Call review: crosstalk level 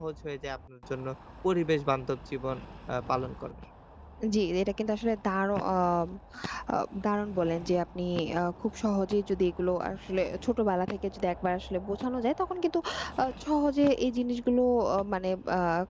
none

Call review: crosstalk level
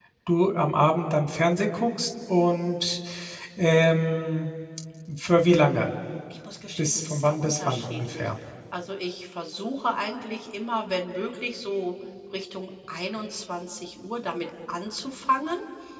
present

